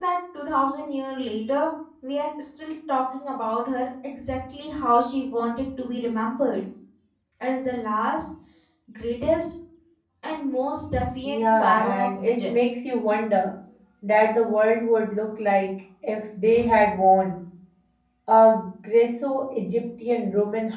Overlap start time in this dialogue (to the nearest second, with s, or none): 11 s